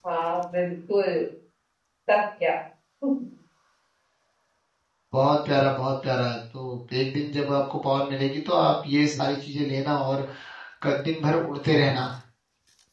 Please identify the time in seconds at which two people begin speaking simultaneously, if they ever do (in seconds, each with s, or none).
none